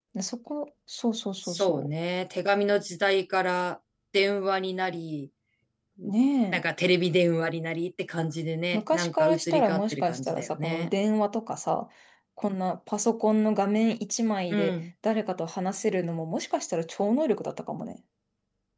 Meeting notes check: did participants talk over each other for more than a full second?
Yes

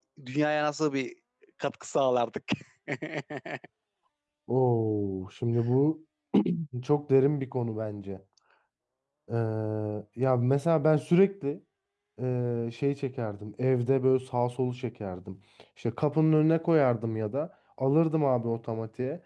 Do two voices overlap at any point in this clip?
No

